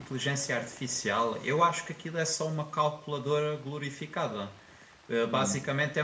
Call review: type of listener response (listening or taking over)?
listening